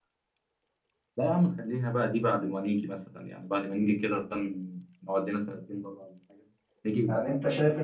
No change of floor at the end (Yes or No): No